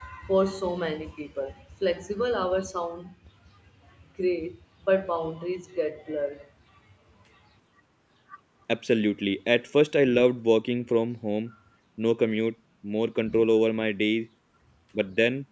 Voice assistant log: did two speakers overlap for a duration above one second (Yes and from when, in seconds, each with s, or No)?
No